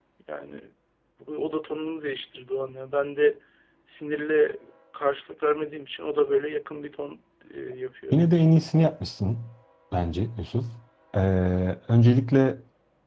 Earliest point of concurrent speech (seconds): none

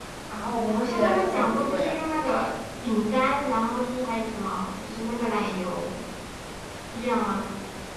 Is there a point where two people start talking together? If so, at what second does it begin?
0.7 s

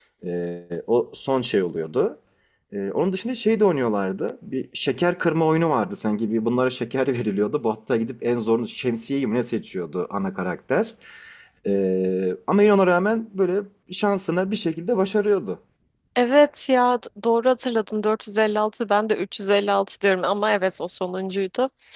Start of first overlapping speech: none

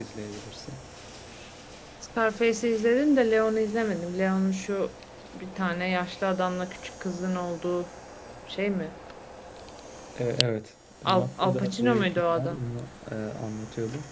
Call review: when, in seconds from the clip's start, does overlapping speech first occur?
11.0 s

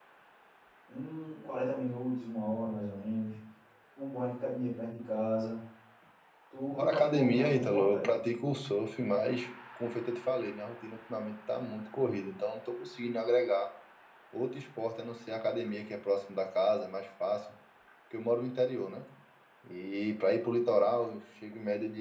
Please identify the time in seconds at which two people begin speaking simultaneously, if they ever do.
6.8 s

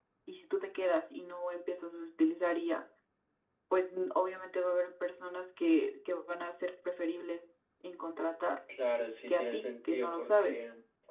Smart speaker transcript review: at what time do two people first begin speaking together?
9.3 s

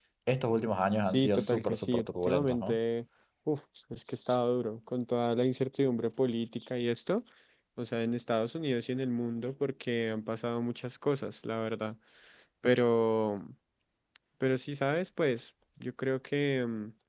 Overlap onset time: 1.1 s

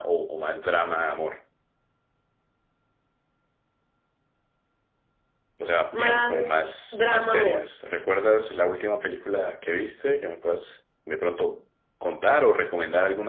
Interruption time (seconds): 5.9 s

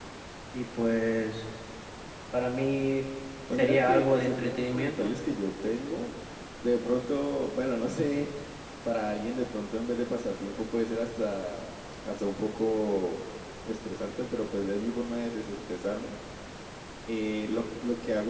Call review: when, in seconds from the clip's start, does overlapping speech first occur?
3.5 s

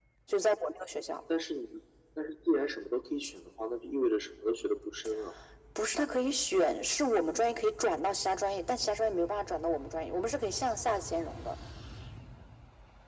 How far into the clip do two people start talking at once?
none

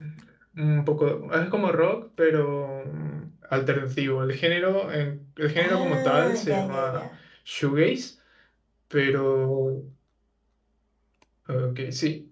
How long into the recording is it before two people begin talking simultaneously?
5.6 s

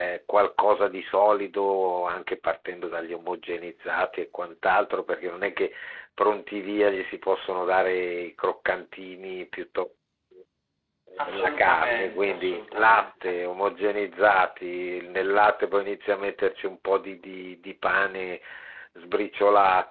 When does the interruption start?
11.2 s

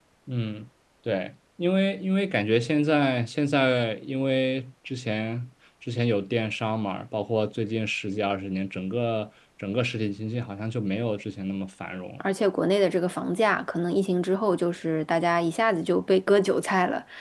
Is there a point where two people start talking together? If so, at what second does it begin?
none

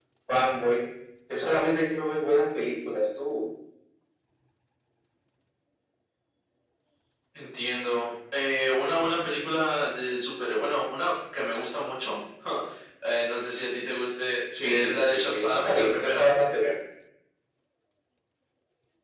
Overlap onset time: 14.5 s

